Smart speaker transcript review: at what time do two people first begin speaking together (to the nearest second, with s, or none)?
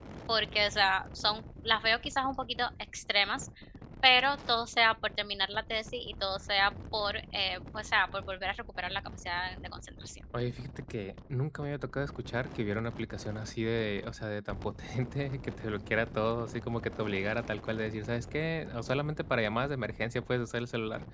none